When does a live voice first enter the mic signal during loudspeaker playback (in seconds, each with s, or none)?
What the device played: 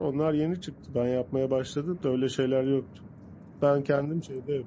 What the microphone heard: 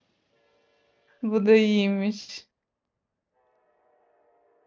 1.2 s